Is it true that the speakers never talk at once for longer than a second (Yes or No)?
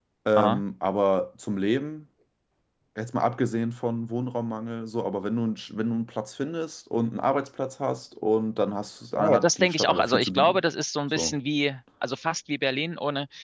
No